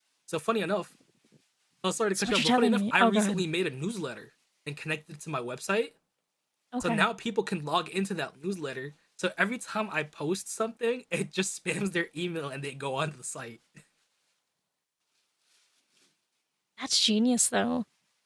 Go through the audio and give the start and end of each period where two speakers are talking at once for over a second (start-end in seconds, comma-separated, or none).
2.1-3.4